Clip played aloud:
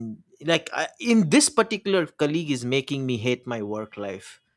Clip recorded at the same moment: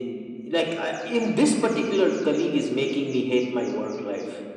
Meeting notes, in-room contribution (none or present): none